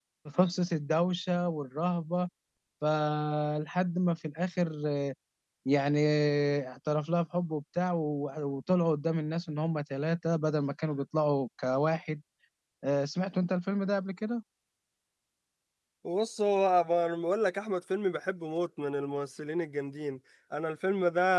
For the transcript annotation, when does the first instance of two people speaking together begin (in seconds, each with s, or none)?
none